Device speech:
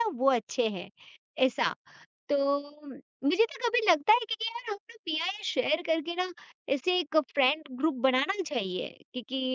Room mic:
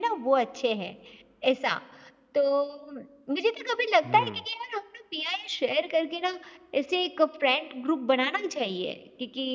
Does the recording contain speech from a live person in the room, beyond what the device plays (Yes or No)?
Yes